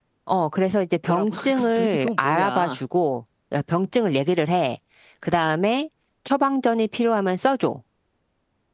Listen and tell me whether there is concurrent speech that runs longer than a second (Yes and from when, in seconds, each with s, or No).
Yes, from 1.1 s